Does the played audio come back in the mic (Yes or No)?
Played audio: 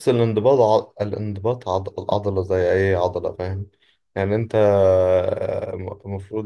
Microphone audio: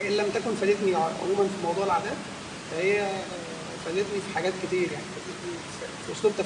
No